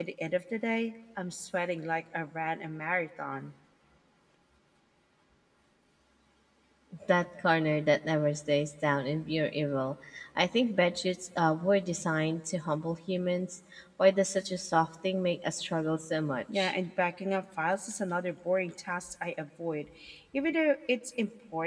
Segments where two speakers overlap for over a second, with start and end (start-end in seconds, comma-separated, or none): none